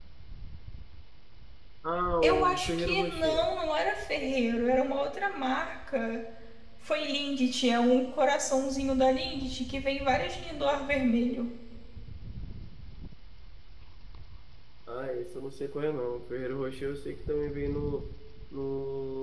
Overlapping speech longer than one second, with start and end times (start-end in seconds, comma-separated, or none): 2.2-3.5